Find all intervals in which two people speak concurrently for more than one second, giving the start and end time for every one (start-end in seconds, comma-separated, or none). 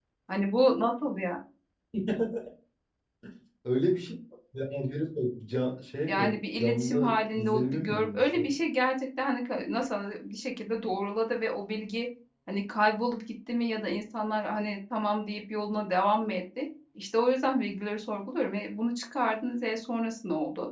6.1-8.5